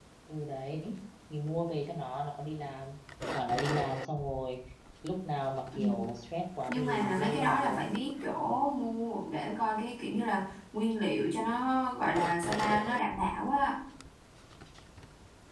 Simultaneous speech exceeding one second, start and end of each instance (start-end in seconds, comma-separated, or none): 6.7-7.9